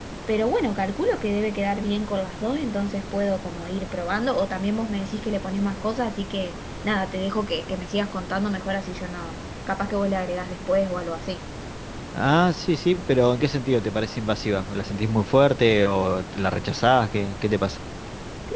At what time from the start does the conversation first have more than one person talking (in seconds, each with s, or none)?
none